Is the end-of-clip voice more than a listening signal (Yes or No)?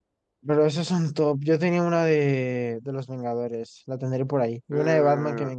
Yes